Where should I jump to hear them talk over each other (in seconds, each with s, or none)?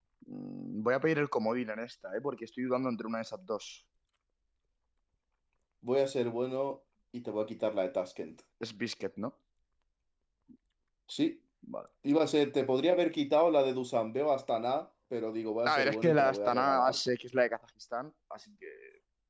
15.6 s